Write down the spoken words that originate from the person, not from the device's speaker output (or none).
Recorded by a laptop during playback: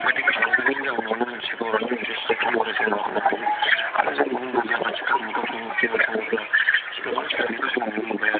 none